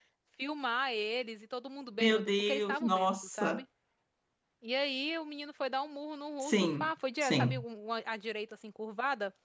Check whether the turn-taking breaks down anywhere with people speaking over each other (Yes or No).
Yes